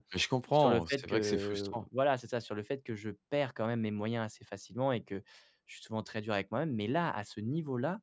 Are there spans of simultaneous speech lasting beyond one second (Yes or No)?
Yes